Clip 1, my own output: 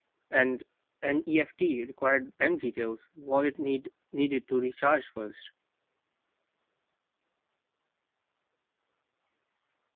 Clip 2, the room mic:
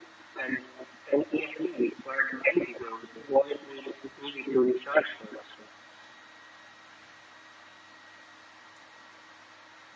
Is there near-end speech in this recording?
No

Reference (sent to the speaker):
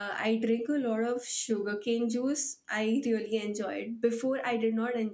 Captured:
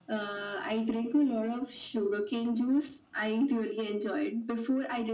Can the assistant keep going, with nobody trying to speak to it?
Yes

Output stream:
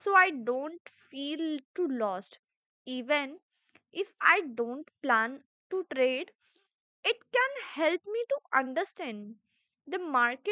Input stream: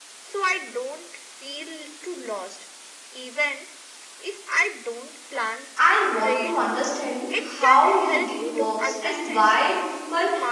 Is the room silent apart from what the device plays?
No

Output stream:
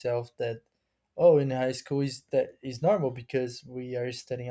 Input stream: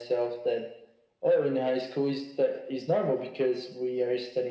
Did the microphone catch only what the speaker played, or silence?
Yes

